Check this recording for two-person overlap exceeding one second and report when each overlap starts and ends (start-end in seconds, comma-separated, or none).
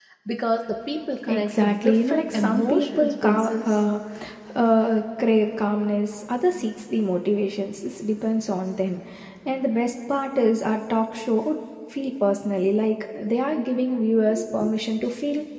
1.3-3.8